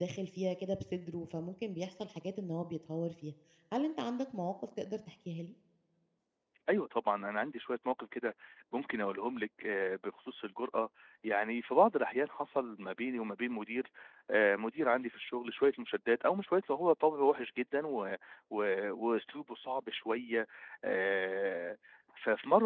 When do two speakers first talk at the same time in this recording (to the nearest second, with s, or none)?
none